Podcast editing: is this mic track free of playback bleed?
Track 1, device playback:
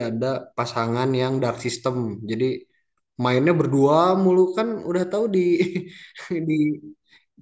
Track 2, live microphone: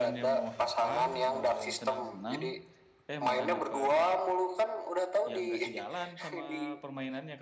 No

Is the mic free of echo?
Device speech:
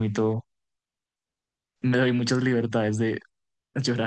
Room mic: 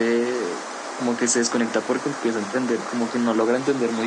Yes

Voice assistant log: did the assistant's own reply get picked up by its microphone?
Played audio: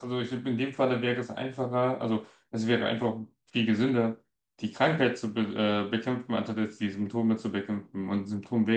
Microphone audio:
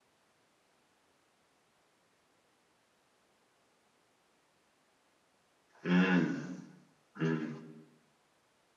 No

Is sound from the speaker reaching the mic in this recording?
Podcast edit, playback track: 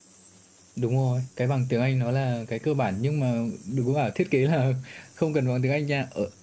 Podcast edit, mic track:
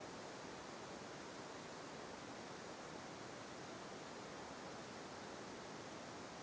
No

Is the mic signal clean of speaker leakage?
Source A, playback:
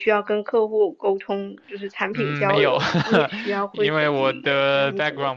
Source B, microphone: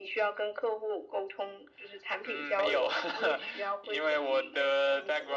No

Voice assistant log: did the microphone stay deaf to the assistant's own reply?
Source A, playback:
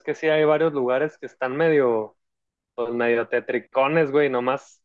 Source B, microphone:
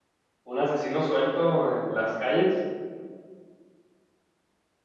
Yes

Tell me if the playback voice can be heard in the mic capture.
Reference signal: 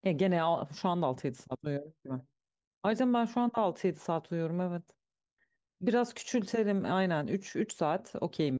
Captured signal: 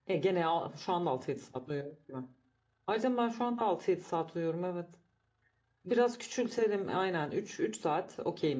Yes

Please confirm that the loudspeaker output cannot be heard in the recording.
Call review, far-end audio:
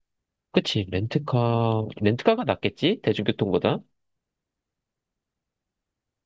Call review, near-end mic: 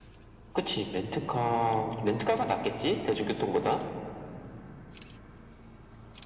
No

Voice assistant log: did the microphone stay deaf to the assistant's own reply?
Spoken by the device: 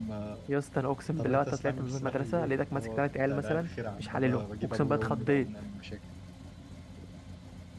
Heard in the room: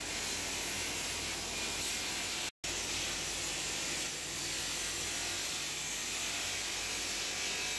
Yes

